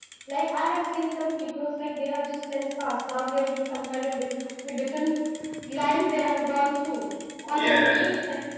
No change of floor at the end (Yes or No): Yes